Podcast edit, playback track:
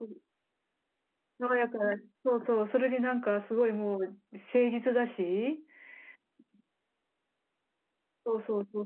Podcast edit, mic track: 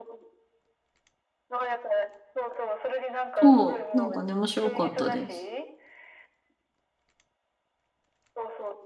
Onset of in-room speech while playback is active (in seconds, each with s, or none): 3.4 s